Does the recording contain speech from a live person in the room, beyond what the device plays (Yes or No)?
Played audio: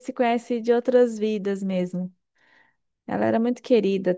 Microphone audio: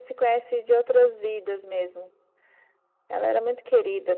No